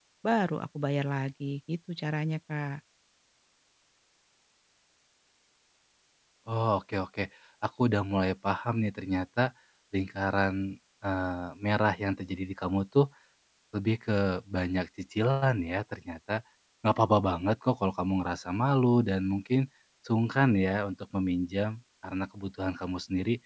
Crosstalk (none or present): none